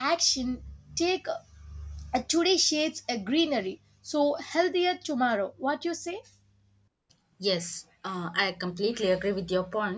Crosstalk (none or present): none